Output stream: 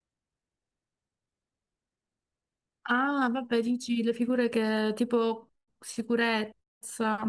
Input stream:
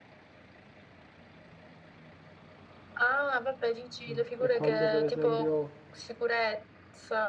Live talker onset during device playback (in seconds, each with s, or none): 4.1 s